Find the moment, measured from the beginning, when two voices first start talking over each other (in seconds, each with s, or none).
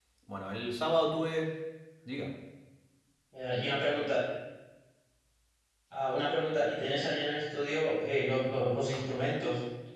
none